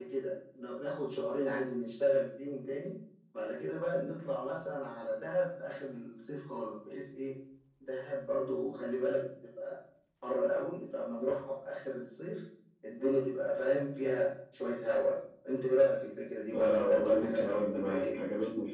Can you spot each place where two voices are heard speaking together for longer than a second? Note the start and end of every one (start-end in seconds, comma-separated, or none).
16.5-18.2